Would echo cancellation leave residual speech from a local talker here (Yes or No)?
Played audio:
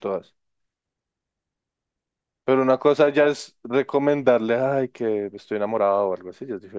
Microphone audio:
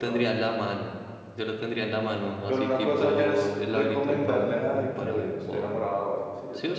Yes